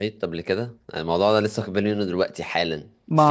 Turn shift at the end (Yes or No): No